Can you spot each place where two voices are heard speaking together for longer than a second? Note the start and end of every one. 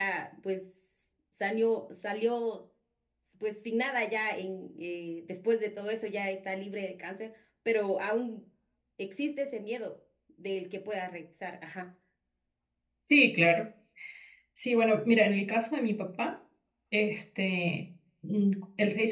none

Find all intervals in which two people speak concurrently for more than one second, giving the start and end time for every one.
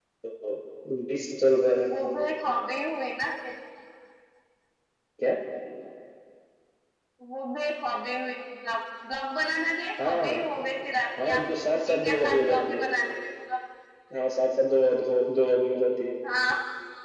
11.2-12.9

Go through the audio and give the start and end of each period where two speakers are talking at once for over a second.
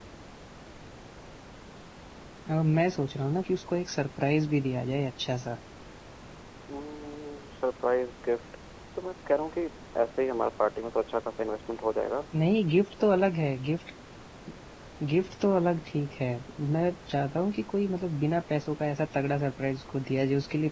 none

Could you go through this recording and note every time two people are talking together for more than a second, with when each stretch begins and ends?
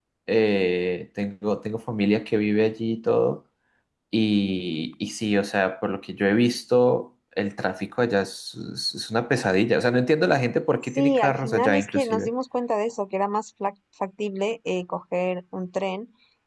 10.9-12.3

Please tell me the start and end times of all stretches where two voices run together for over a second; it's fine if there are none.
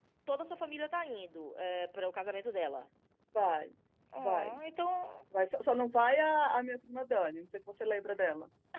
none

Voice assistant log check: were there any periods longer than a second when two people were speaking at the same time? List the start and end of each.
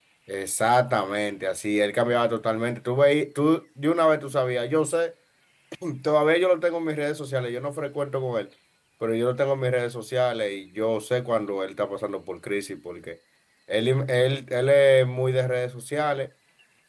none

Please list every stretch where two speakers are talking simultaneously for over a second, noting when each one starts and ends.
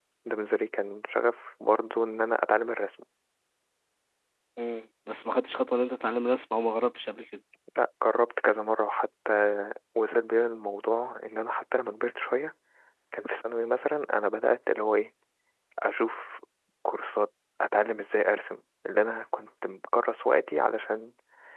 none

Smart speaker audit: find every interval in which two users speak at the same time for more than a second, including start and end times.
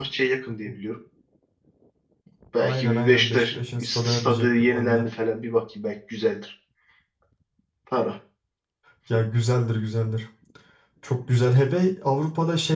2.6-5.0

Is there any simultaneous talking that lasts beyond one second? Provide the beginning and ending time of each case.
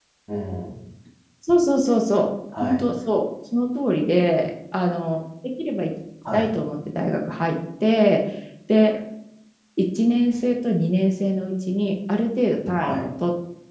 none

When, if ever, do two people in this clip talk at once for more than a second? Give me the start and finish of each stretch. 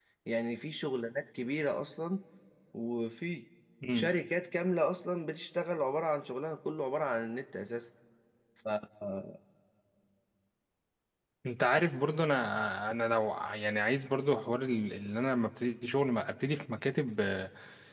none

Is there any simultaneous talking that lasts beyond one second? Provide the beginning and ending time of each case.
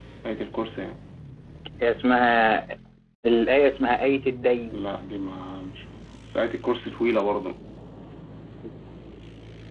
none

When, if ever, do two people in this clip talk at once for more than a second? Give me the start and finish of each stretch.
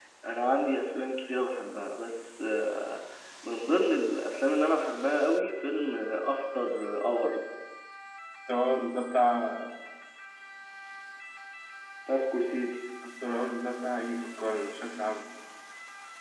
none

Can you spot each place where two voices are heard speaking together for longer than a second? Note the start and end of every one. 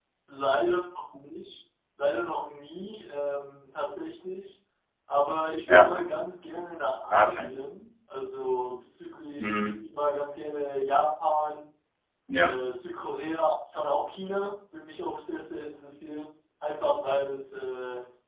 none

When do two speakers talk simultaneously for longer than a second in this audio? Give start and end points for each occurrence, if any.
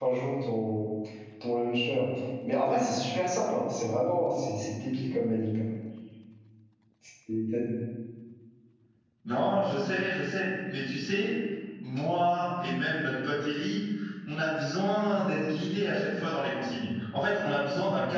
none

